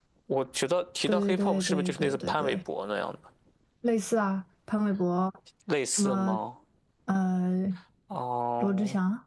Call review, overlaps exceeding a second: present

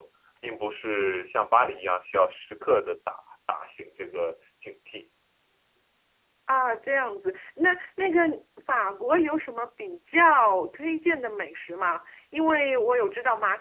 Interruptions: none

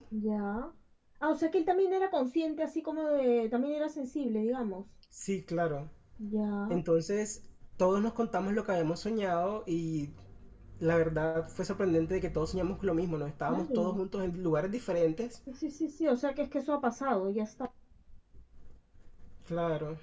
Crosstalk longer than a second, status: none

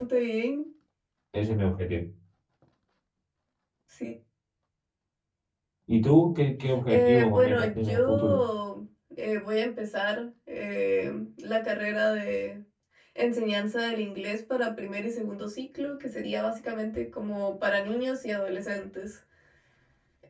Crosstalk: present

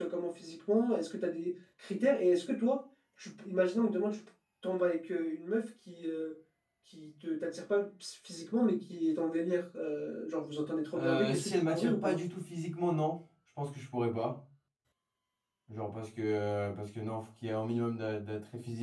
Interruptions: present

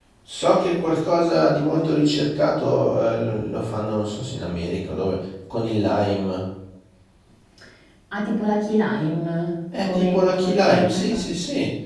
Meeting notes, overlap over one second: present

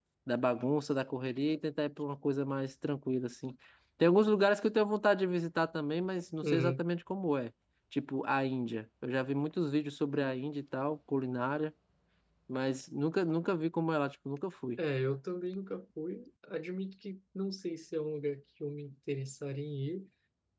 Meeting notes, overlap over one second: none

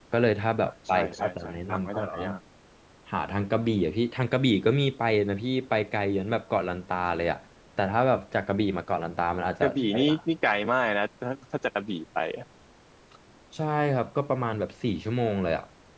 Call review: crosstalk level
present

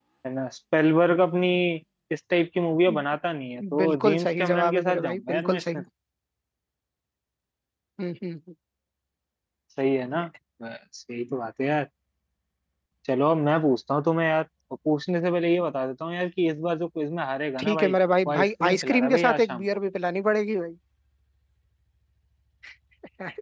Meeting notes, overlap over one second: present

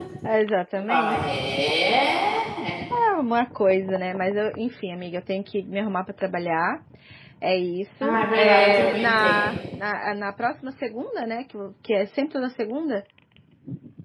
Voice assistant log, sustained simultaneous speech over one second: present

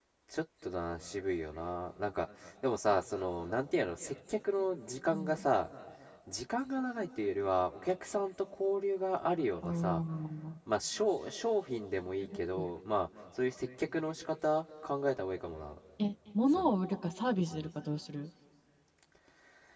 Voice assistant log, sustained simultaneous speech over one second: none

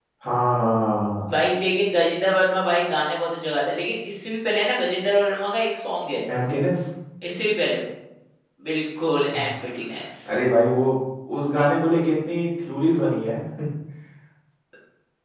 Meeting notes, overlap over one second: none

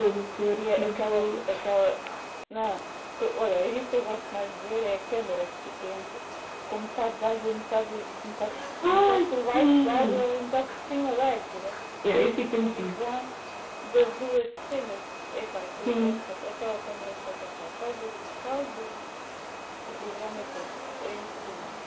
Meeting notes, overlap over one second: present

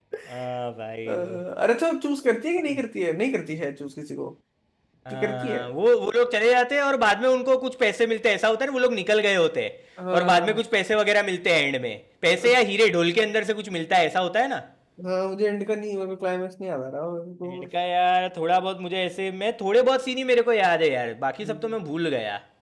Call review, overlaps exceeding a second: none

